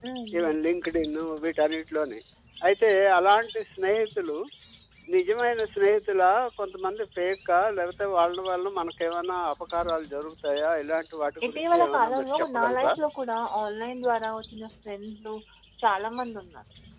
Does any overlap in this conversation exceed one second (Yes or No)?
Yes